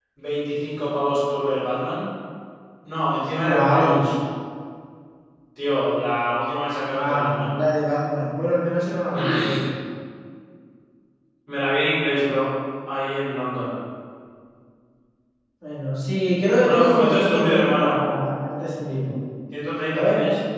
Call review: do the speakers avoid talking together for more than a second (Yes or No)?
No